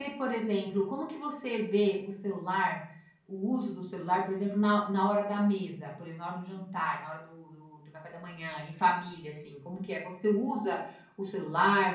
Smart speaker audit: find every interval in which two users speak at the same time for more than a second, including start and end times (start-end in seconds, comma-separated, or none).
none